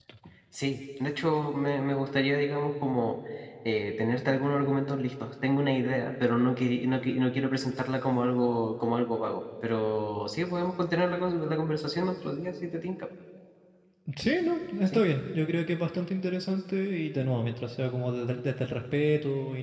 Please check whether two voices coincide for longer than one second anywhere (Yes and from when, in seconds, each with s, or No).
No